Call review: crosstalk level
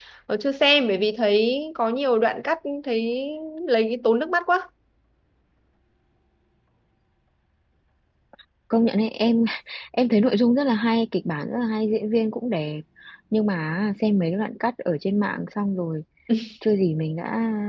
none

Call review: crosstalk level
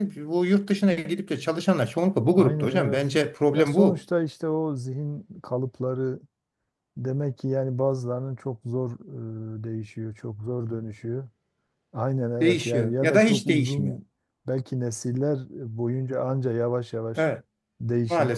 present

